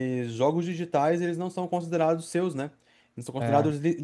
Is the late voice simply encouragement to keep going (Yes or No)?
Yes